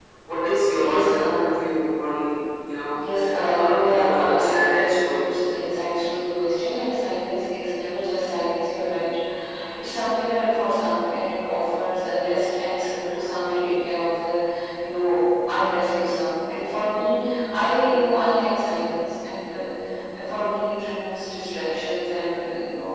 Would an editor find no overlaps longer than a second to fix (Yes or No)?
No